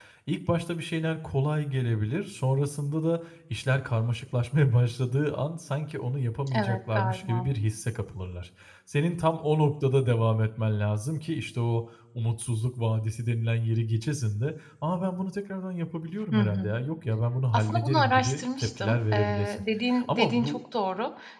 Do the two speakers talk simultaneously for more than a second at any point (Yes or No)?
Yes